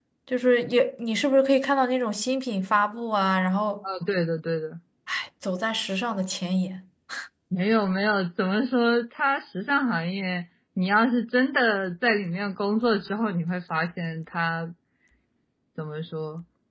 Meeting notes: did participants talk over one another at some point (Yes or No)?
No